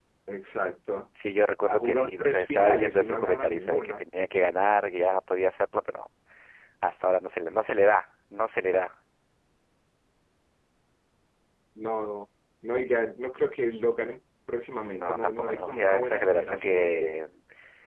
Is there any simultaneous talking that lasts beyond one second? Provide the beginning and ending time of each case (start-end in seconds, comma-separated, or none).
1.6-4.0, 14.8-17.0